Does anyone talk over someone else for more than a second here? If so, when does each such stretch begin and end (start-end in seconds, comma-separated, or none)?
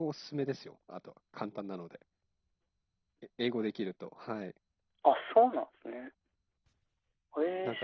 none